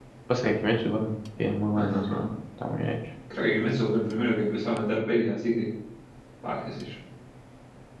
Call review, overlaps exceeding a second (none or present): none